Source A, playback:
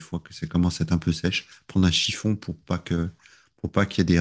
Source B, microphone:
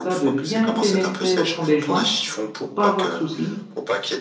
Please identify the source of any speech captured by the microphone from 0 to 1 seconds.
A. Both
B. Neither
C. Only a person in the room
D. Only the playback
A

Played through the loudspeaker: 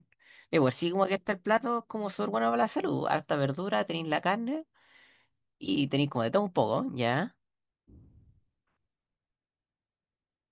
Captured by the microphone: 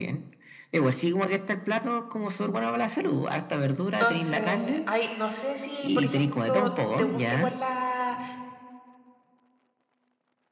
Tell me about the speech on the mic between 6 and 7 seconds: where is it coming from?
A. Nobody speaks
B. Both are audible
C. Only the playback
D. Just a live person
B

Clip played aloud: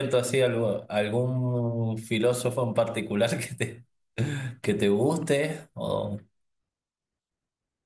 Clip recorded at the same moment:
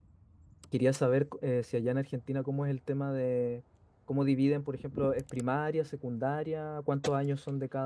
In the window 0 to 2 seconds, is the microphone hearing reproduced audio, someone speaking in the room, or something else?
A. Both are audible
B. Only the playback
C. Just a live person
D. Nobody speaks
C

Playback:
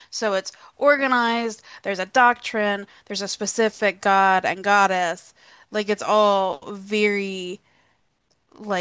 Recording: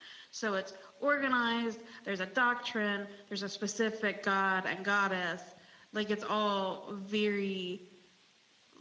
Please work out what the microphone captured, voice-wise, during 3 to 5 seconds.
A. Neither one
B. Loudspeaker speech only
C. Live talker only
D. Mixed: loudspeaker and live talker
B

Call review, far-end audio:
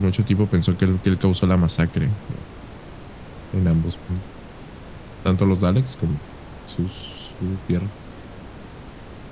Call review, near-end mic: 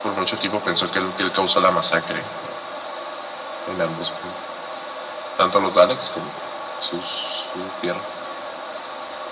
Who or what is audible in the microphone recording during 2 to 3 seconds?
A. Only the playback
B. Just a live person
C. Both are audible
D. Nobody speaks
A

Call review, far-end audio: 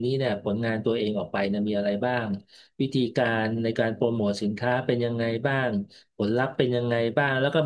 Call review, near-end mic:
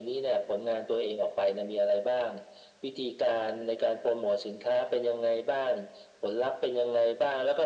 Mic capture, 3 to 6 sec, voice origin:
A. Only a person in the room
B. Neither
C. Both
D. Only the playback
D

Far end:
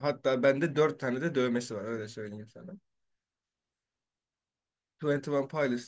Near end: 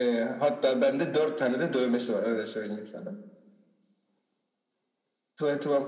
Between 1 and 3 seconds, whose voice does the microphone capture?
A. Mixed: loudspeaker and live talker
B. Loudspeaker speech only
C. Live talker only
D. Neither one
B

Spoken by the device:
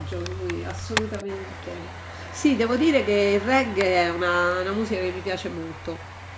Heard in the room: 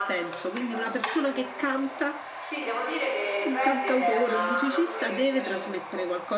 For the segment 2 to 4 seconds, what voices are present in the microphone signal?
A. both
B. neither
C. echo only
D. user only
A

